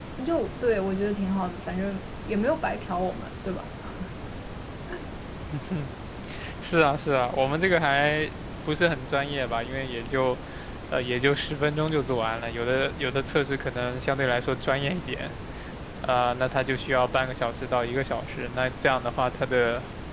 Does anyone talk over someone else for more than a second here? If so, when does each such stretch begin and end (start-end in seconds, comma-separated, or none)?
none